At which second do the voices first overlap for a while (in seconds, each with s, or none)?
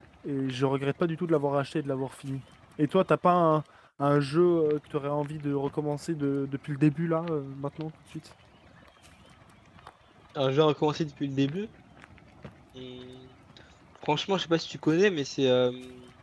none